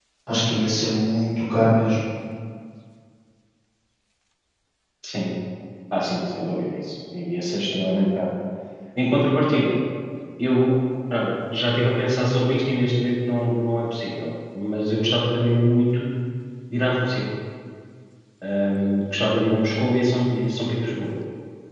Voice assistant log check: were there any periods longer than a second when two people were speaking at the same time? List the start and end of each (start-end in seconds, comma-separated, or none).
none